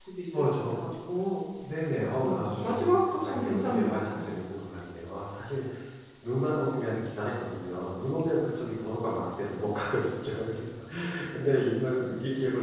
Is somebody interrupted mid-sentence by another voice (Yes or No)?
Yes